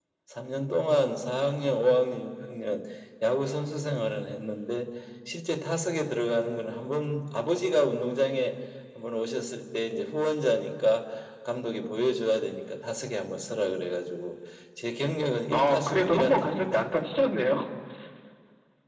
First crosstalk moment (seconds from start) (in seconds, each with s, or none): 15.5 s